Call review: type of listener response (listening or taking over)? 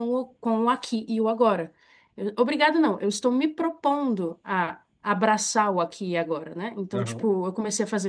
listening